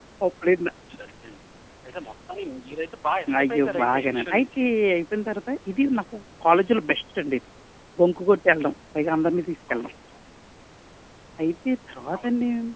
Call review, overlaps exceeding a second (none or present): present